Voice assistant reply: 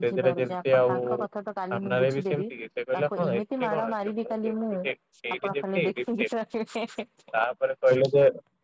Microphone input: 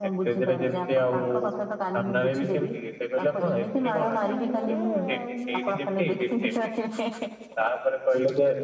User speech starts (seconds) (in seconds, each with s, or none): 4.0 s